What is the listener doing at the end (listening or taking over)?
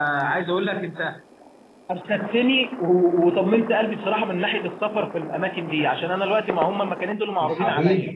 listening